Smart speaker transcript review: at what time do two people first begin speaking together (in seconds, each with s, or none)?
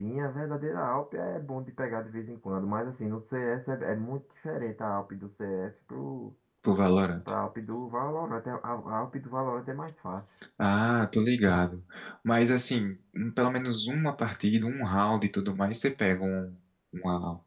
none